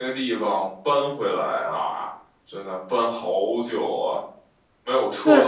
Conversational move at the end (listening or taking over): listening